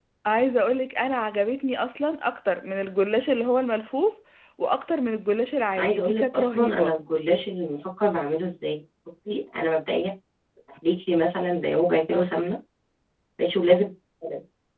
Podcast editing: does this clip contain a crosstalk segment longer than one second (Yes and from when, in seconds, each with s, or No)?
Yes, from 5.8 s